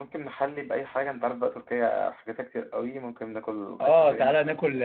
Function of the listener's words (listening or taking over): taking over